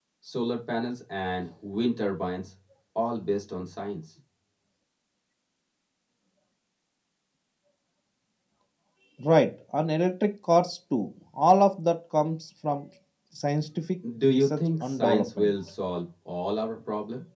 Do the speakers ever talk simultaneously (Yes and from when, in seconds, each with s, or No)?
Yes, from 14.3 s